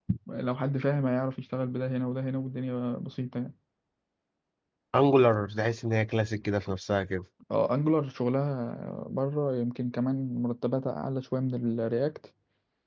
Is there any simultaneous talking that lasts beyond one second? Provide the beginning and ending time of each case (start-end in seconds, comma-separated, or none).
none